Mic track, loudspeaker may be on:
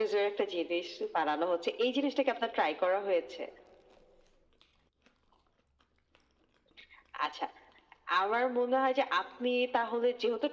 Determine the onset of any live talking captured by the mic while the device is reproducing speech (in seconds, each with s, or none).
none